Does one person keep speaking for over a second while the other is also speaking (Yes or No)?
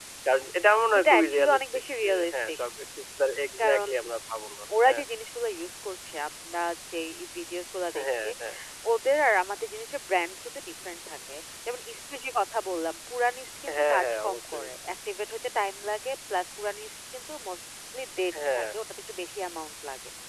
Yes